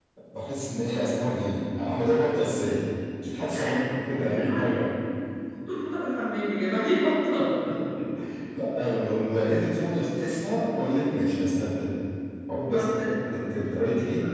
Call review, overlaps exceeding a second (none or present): present